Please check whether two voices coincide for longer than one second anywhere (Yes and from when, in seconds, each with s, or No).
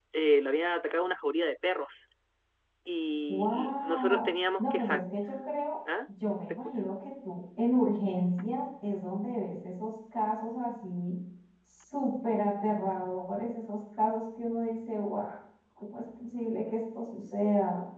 Yes, from 3.3 s